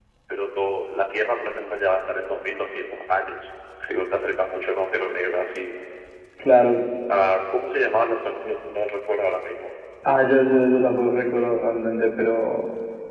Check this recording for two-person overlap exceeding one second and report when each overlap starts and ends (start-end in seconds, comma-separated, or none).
none